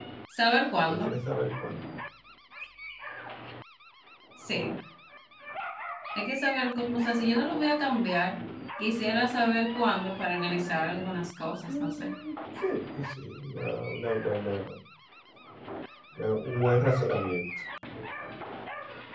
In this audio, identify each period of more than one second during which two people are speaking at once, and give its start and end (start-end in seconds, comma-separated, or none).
none